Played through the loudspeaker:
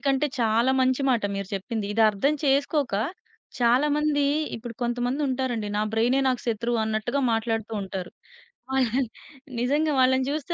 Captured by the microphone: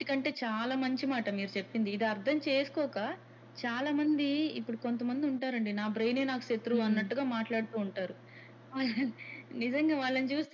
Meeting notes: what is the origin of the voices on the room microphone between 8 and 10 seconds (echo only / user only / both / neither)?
echo only